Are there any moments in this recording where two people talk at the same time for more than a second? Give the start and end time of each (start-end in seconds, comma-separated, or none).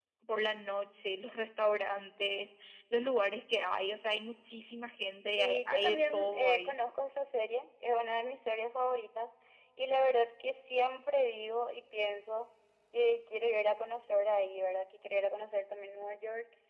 5.3-6.7